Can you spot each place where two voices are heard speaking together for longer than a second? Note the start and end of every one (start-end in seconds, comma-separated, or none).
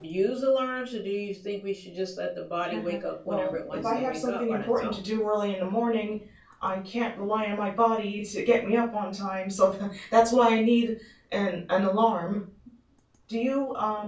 3.2-5.0